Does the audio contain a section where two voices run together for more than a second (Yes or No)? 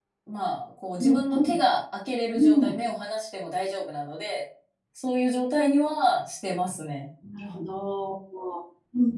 No